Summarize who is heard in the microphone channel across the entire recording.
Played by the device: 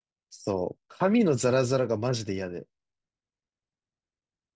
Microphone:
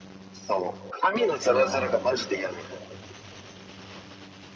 both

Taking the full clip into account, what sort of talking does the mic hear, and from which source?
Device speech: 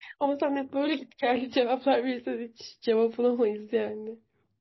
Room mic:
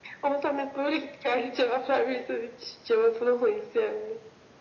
echo only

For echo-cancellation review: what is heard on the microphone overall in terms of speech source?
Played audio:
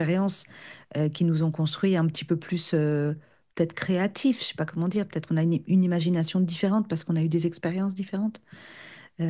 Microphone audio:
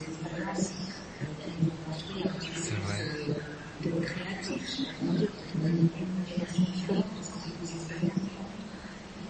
both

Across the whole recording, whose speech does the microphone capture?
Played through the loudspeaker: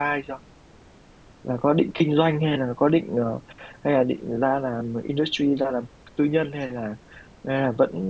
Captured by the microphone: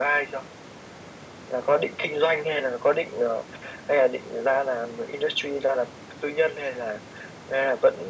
echo only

